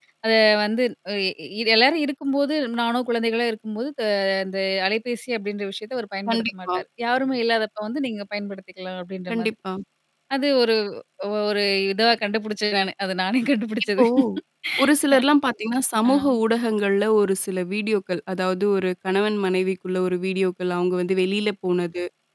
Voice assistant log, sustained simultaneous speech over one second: none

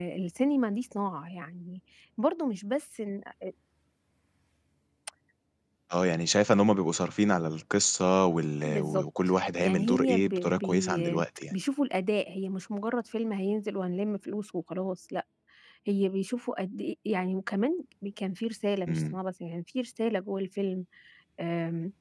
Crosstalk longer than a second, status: present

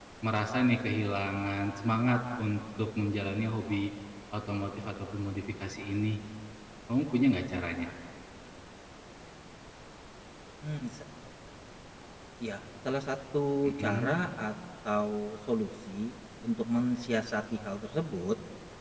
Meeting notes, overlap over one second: none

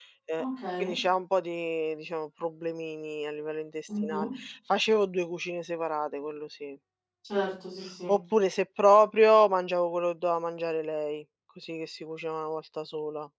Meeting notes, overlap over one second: none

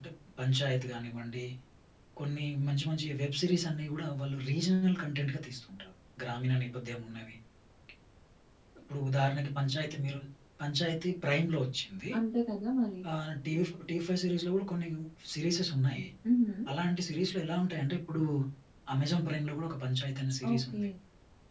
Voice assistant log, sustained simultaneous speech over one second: none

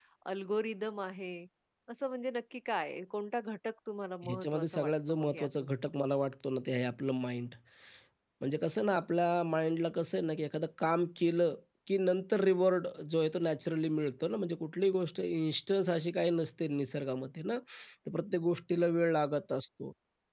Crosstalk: present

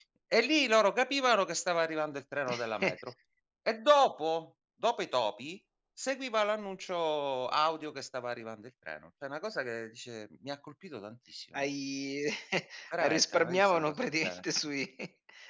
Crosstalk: present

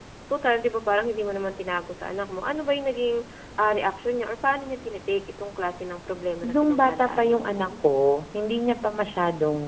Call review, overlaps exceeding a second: present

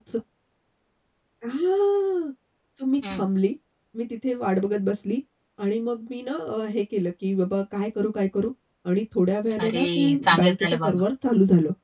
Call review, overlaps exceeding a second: present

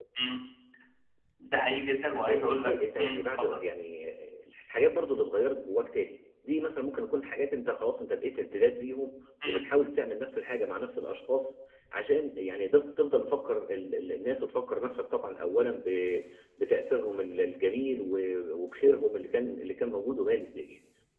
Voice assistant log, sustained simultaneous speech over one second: present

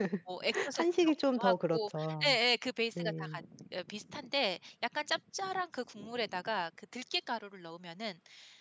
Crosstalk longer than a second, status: present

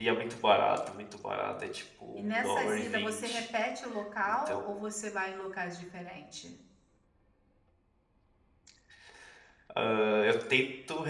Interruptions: present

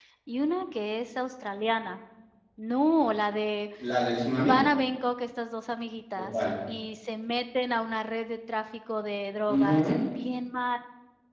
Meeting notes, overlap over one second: none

